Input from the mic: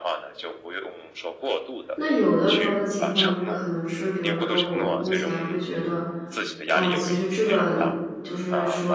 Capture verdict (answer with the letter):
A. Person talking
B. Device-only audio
A